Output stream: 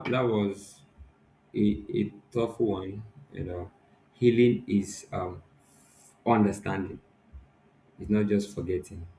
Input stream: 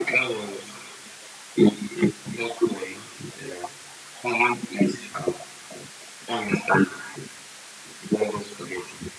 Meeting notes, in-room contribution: none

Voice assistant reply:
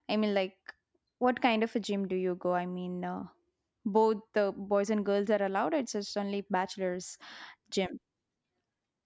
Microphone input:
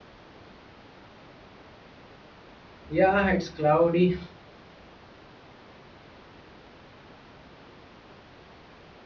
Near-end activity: present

